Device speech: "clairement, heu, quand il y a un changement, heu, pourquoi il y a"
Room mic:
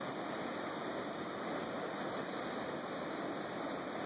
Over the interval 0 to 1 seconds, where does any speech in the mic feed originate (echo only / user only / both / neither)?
neither